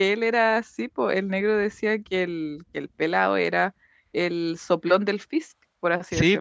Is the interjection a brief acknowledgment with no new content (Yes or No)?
No